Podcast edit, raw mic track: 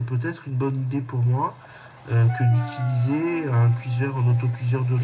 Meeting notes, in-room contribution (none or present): none